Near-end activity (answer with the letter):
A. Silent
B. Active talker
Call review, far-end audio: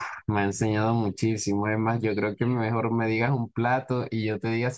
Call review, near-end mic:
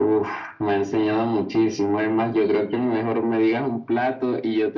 A